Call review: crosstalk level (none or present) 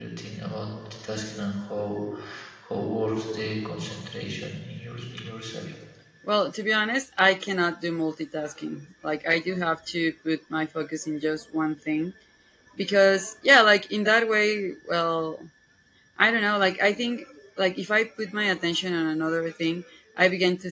none